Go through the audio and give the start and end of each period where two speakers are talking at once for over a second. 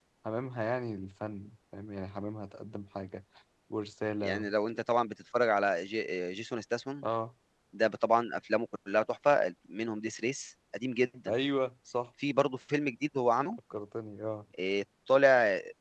none

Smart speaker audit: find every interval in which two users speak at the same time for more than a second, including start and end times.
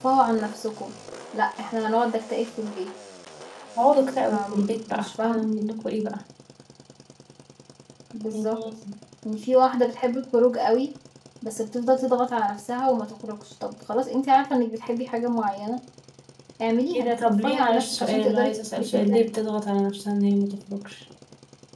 4.3-5.5, 16.9-19.3

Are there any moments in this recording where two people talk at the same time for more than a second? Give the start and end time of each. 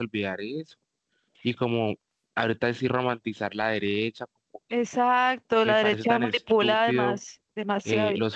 5.7-7.2

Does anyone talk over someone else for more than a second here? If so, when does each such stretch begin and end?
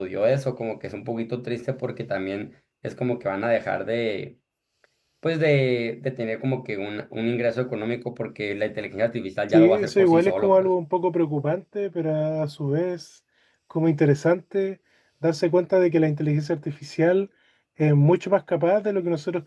9.5-10.7

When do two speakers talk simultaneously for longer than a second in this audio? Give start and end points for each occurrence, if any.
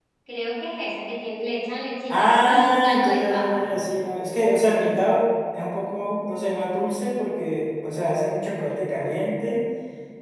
2.1-3.6

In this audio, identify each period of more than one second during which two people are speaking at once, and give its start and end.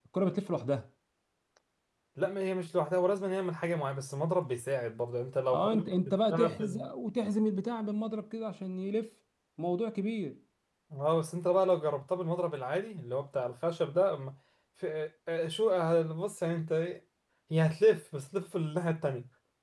5.5-6.9

